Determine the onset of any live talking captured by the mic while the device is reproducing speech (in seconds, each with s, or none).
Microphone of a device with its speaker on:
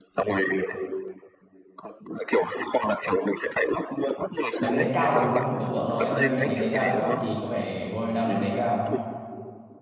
4.6 s